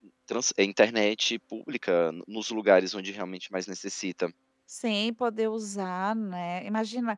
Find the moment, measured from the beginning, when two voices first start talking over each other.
none

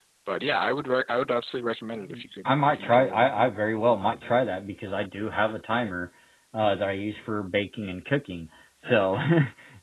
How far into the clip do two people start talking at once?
2.1 s

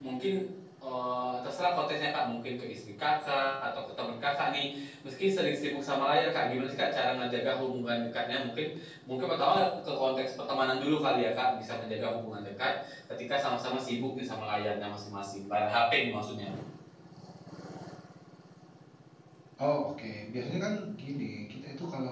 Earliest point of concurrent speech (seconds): none

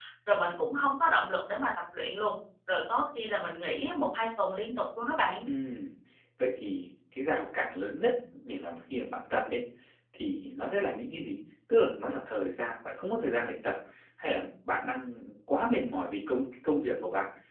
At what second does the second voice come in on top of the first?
none

